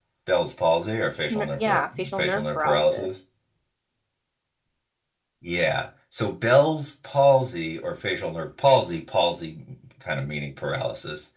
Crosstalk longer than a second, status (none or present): present